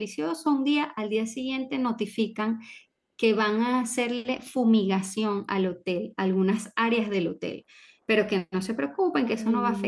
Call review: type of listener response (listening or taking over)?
listening